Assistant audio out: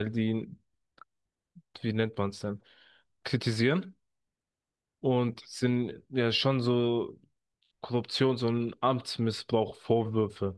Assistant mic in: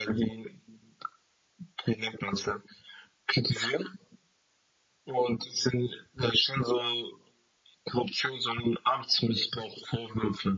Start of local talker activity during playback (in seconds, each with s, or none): none